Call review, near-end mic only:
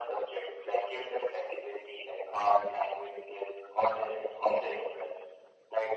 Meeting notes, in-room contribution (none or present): none